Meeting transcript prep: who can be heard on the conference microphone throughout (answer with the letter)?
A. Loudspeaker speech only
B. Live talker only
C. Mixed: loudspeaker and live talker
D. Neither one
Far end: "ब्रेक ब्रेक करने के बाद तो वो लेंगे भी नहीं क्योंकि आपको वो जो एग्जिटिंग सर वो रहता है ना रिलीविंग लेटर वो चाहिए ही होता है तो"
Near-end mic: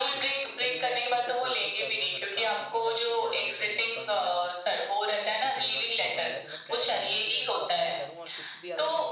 C